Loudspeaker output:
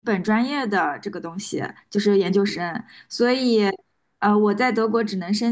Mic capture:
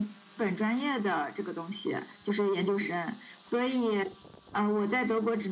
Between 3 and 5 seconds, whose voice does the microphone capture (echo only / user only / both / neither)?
echo only